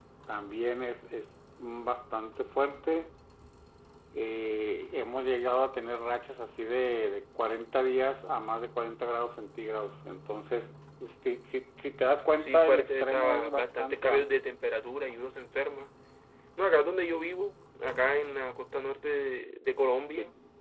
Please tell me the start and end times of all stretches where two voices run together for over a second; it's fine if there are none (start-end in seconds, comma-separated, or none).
12.4-14.4